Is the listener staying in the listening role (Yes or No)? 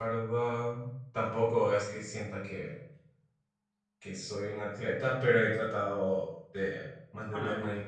Yes